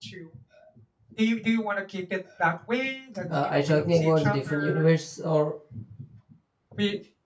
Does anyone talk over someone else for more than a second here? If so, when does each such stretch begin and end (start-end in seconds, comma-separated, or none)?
3.4-4.8